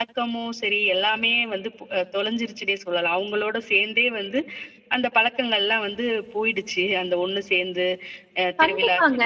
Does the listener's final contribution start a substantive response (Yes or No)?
Yes